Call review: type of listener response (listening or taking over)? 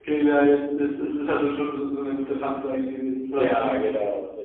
taking over